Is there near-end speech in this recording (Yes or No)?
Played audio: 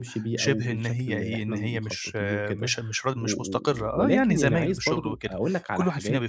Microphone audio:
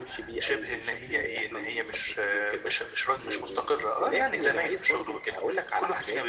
No